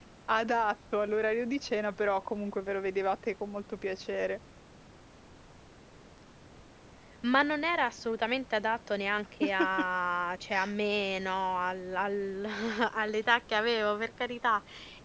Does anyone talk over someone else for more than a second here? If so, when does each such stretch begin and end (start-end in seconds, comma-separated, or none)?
none